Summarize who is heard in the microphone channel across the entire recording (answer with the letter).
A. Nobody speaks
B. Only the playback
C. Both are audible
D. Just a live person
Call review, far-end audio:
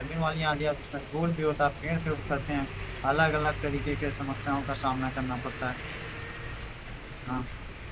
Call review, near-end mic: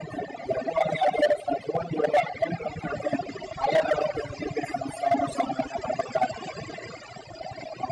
B